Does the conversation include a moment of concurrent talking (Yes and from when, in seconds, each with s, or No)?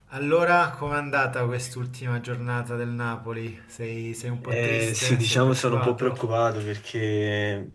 Yes, from 4.4 s